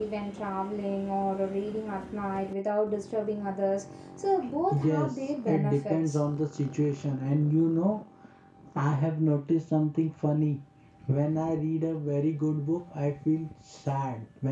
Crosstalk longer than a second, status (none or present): present